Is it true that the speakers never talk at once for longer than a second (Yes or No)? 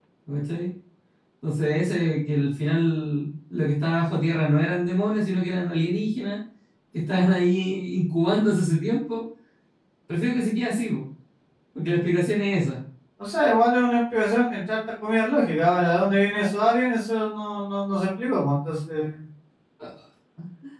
Yes